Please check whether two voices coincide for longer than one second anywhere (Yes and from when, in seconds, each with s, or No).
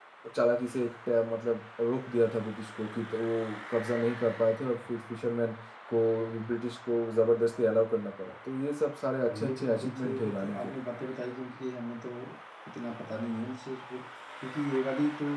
Yes, from 9.3 s